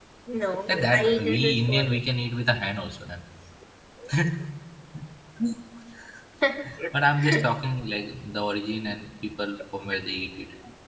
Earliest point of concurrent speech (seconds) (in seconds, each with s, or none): 0.7 s